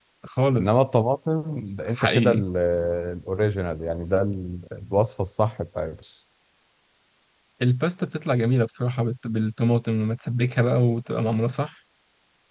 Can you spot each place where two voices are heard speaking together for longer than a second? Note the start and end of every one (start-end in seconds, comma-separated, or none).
none